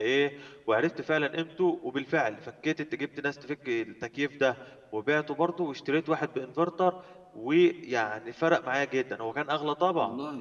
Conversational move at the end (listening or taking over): taking over